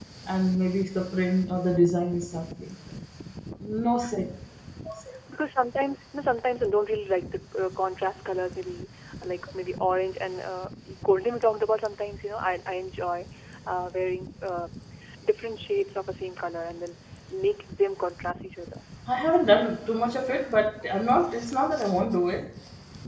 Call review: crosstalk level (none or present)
none